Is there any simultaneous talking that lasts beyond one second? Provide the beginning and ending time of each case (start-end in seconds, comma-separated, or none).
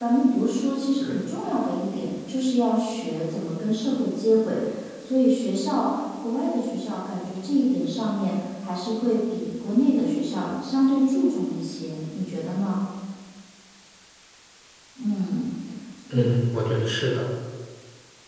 none